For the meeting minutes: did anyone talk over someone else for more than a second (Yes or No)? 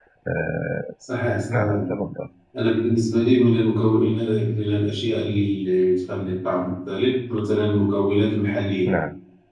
No